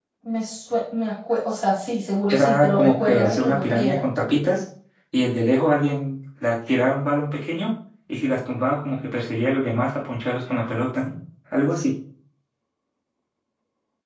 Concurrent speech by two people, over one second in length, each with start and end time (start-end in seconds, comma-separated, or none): 2.3-4.0